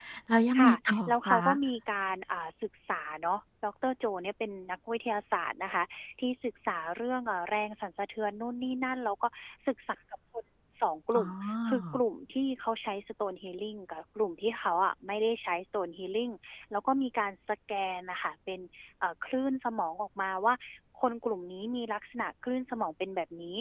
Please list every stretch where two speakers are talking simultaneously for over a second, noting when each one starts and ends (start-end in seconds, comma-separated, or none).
none